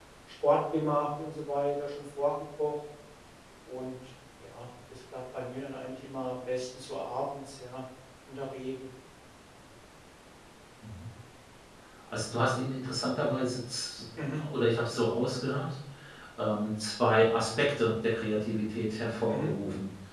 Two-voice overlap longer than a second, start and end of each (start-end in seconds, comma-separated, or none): none